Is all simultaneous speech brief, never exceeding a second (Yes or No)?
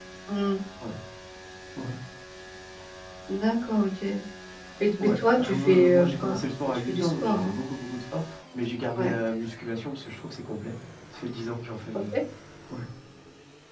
No